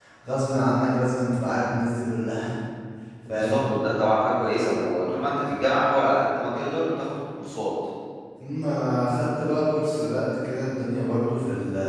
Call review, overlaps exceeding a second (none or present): none